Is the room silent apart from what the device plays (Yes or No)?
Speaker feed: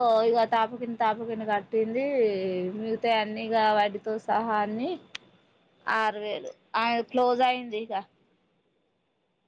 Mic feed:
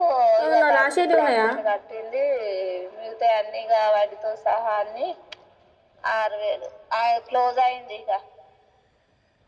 No